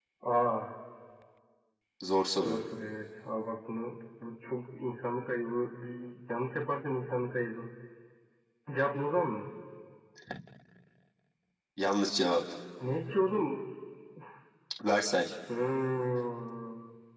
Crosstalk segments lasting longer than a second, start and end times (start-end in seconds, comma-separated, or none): none